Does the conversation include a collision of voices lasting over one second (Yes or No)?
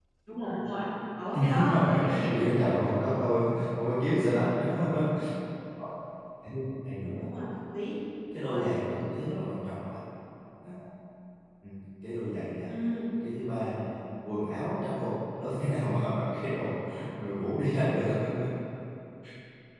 Yes